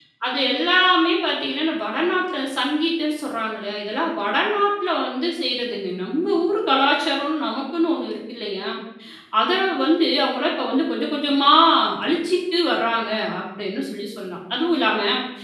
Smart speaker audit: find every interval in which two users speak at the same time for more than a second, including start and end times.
none

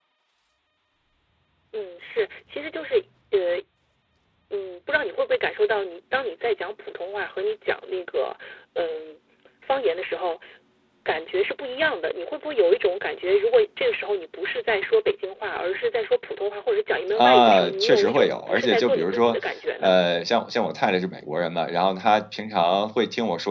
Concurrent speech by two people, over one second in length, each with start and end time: 17.1-19.3

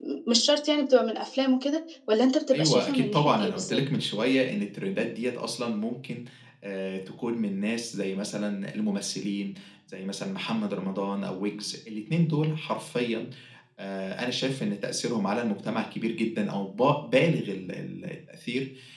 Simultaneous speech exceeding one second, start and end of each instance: 2.5-3.8

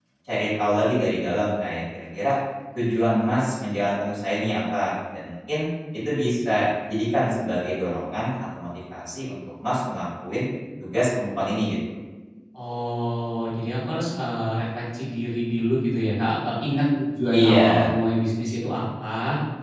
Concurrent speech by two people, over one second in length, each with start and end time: none

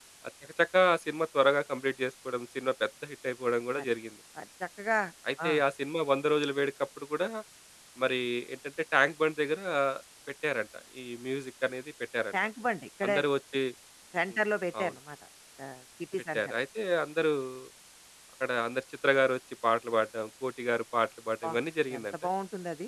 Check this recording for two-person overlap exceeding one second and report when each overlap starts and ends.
none

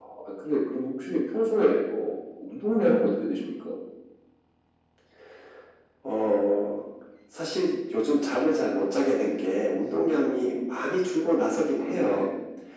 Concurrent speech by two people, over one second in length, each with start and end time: none

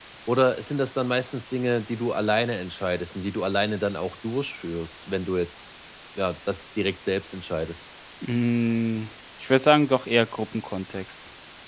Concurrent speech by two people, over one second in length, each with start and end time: none

